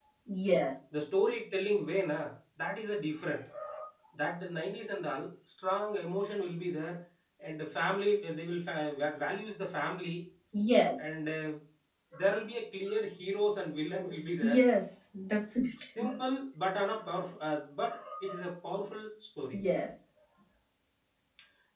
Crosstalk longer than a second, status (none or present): none